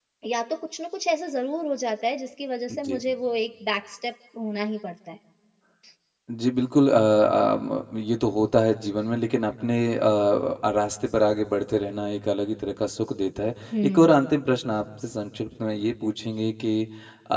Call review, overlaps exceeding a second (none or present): none